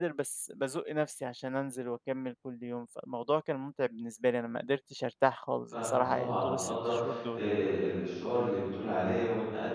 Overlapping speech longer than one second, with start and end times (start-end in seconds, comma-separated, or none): 5.7-6.9